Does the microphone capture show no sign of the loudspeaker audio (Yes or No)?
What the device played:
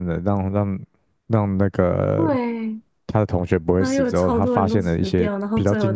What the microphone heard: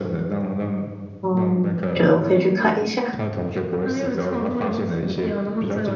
No